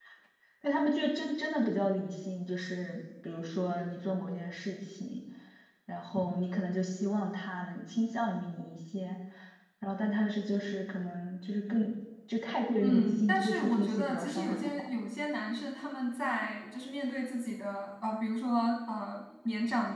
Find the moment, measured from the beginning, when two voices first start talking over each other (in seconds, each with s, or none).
12.8 s